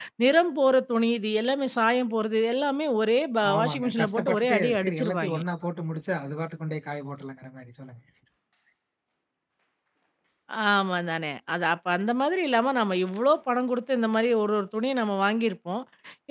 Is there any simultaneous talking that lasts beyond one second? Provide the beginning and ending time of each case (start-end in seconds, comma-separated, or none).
3.5-5.4